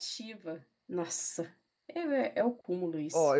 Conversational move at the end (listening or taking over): taking over